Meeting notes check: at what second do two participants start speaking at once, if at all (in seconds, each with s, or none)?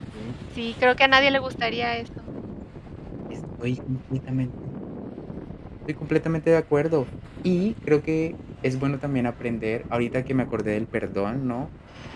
none